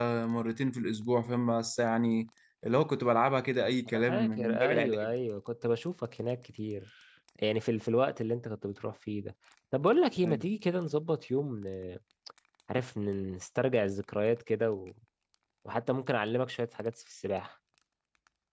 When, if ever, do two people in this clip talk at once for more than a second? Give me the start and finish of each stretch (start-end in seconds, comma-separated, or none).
3.9-5.1